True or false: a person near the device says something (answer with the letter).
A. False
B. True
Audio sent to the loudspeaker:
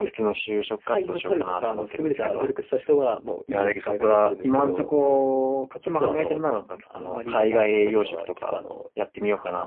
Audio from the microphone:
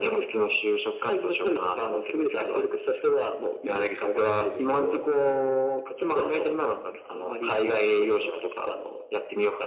A